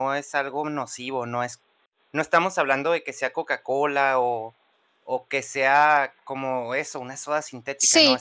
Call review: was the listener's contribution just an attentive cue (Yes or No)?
No